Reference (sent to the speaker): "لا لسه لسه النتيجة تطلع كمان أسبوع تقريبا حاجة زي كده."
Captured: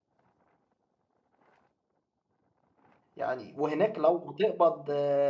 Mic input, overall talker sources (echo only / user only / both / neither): user only